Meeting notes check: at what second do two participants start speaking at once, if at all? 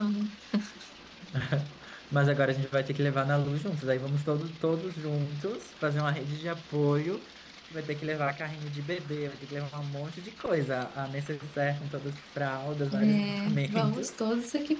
12.9 s

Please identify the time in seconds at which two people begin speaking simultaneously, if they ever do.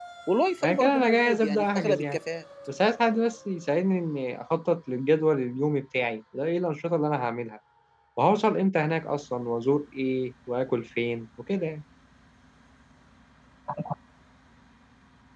0.6 s

